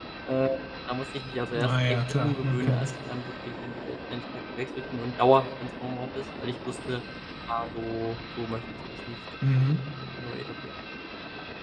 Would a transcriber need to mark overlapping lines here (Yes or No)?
Yes